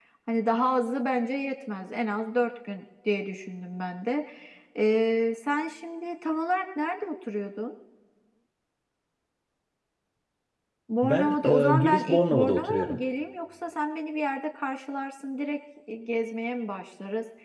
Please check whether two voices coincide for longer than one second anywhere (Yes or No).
Yes